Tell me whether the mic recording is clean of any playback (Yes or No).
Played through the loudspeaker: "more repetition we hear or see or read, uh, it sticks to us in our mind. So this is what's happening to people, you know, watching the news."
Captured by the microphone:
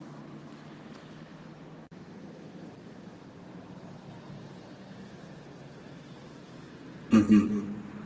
Yes